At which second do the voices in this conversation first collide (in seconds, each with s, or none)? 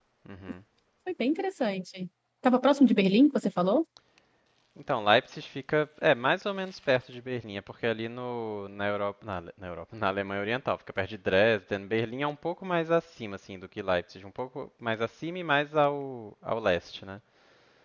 none